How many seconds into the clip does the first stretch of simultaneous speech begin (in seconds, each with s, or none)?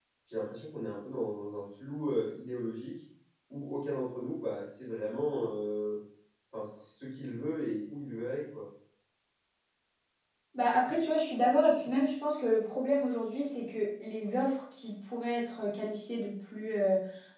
none